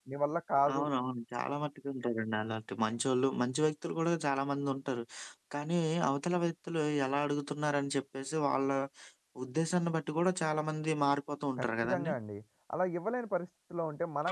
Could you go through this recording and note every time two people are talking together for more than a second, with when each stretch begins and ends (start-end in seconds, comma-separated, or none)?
none